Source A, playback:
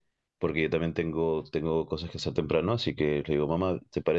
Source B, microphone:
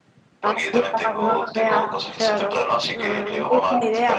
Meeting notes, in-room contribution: present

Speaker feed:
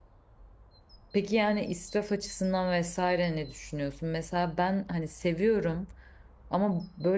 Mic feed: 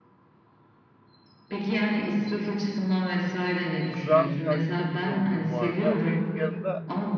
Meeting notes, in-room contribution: present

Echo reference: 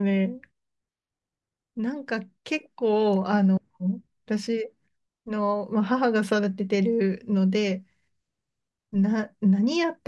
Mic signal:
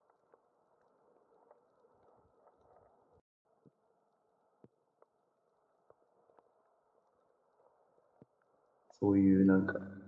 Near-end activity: present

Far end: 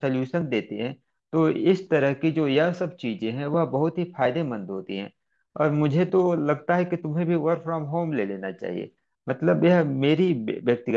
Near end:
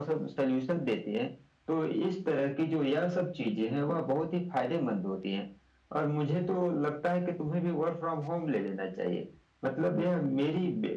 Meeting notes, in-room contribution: none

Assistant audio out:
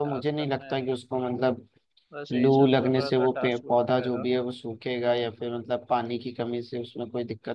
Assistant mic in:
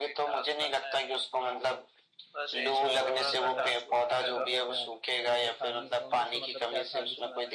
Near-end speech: present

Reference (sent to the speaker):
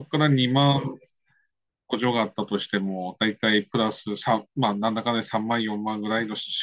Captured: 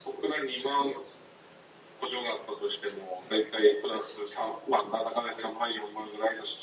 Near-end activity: none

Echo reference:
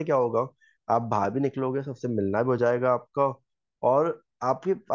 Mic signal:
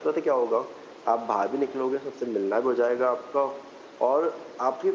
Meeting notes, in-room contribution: none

